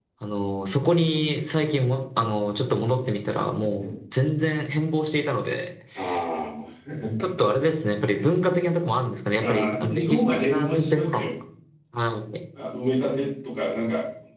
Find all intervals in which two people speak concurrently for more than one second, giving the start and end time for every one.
9.4-11.2

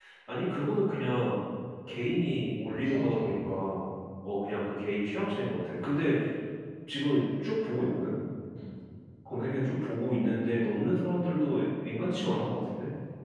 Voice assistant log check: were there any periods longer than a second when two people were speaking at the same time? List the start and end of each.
2.1-3.6

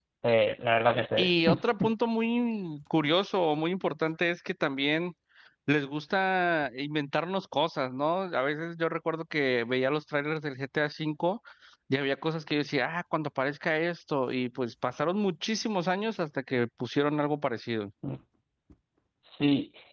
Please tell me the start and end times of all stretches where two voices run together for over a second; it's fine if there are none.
none

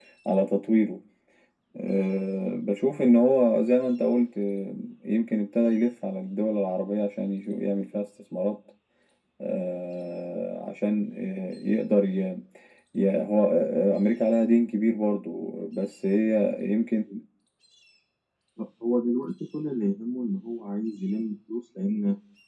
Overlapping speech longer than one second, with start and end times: none

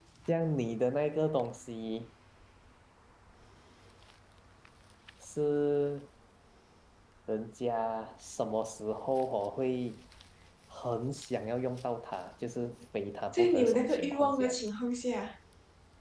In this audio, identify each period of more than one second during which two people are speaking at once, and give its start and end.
13.3-14.6

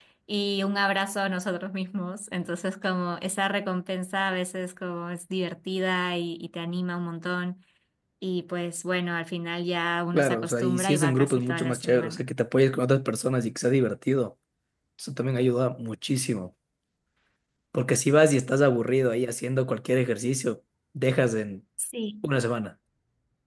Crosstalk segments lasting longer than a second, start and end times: 10.1-12.2

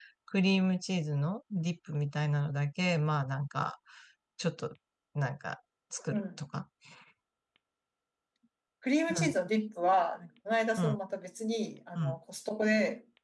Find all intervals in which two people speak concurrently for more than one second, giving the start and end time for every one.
none

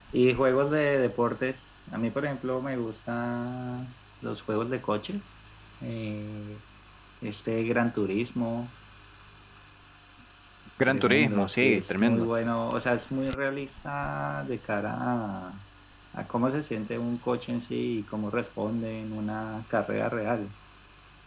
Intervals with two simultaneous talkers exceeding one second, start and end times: 10.9-12.3

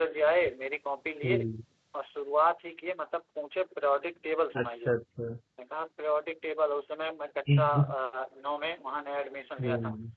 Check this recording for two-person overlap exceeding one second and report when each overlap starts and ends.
none

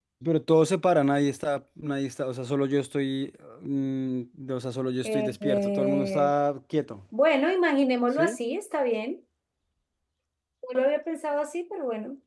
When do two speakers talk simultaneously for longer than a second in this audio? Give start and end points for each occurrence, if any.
5.0-6.3

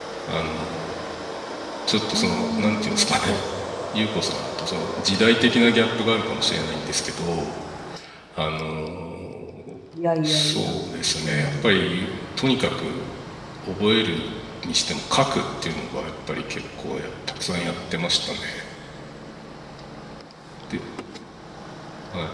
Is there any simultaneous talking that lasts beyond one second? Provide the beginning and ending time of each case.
2.1-3.4

